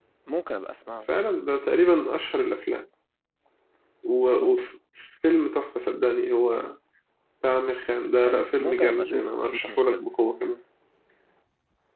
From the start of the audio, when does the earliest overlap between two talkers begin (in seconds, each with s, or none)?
8.2 s